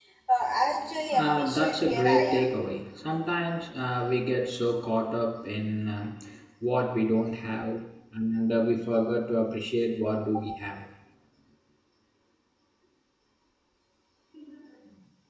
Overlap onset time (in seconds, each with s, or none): 1.1 s